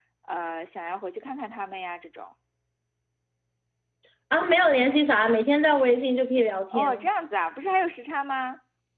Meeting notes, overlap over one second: none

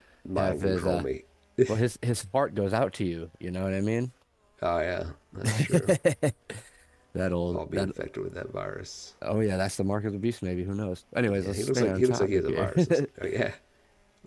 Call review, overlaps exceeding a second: present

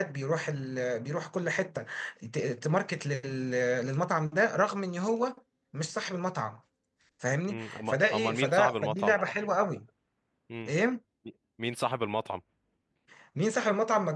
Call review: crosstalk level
present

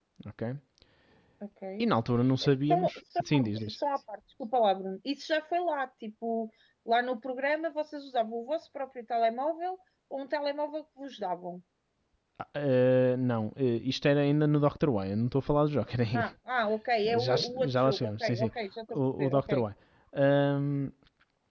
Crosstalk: present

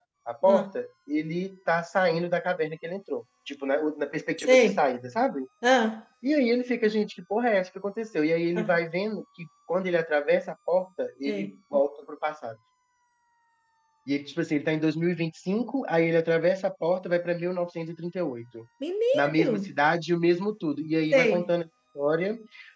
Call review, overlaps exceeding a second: none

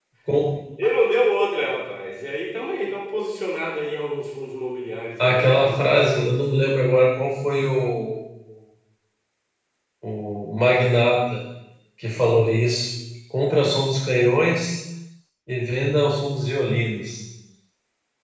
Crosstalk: present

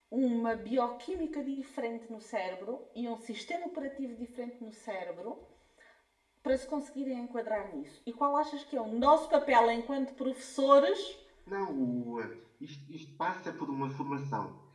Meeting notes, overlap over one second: none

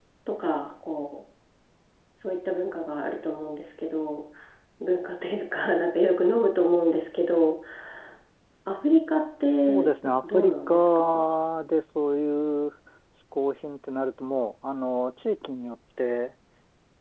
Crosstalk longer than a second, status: present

